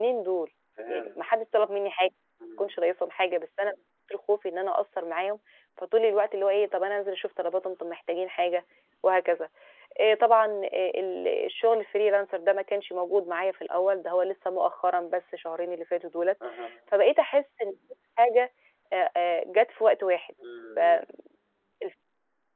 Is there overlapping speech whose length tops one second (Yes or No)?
No